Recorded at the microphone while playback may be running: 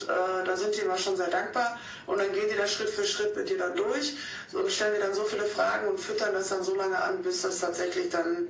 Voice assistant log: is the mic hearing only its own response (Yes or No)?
Yes